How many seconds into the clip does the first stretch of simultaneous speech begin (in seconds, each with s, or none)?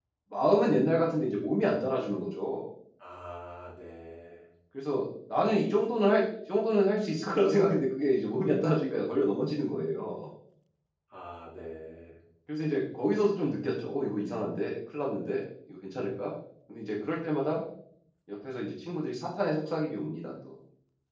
none